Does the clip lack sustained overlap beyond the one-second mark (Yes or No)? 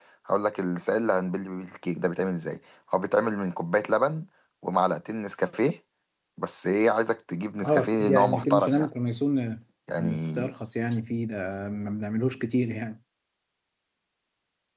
No